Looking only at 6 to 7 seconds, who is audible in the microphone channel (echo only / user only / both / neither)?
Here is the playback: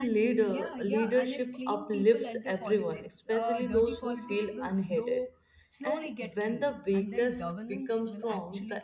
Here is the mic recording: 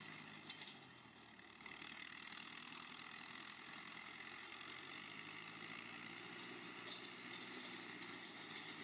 neither